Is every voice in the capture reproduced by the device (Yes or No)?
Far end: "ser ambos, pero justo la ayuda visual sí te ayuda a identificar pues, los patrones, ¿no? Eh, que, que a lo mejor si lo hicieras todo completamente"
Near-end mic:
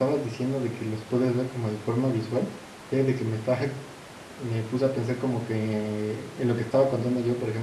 No